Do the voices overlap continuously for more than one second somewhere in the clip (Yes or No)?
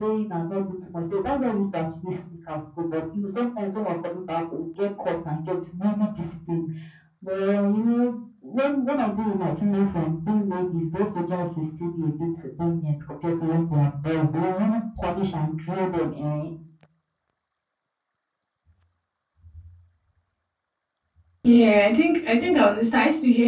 No